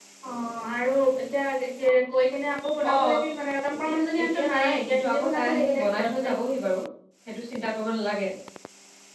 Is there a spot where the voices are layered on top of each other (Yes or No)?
Yes